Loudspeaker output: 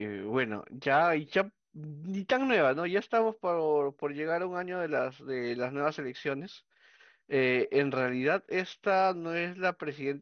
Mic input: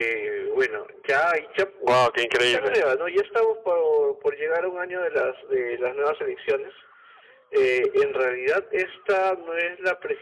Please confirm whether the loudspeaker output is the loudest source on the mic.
No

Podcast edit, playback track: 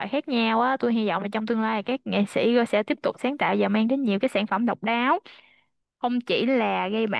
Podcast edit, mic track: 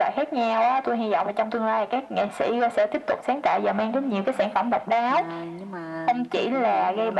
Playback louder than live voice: Yes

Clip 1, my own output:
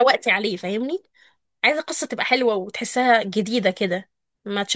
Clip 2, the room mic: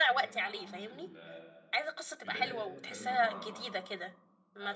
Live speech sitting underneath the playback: Yes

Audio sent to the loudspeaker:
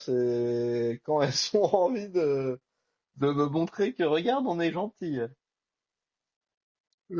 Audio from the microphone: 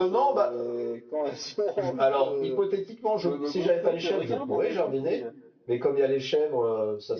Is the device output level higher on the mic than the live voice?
No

